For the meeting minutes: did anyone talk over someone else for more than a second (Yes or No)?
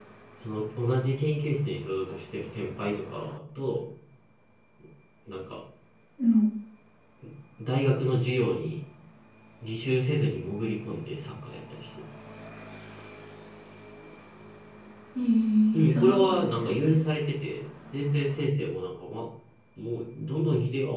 Yes